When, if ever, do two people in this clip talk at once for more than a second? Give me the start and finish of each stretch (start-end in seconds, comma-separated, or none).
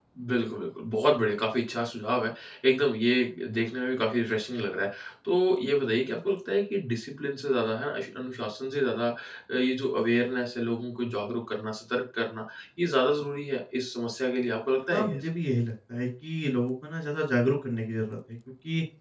none